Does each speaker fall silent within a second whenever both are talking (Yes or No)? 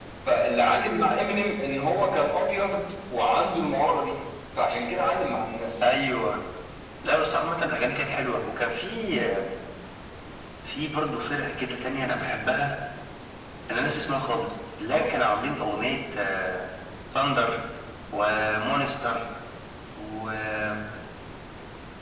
Yes